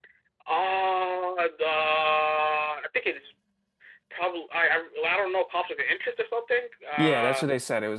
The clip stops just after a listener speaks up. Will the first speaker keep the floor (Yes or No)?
No